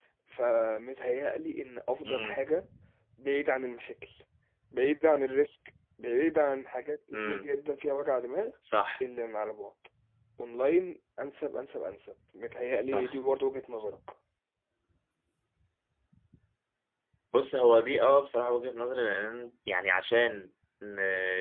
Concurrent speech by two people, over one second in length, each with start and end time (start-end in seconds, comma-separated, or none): none